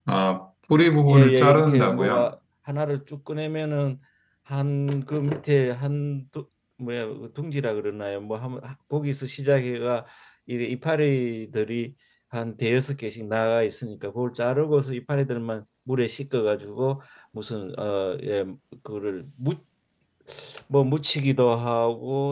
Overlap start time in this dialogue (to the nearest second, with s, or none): 1 s